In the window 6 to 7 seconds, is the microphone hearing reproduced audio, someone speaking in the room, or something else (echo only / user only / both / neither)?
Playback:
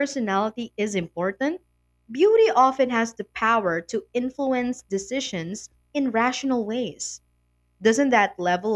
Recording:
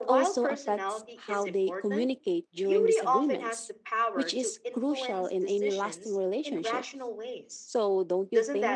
both